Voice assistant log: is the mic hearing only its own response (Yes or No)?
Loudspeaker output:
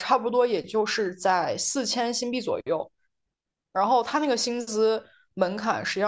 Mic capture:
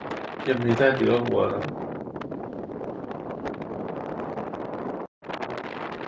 No